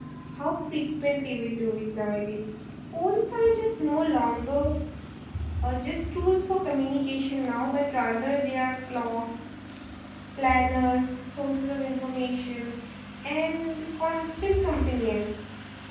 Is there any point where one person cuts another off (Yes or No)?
No